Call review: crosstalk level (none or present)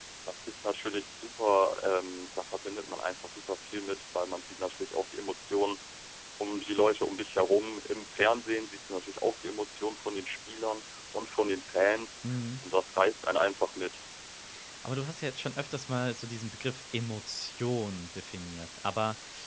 none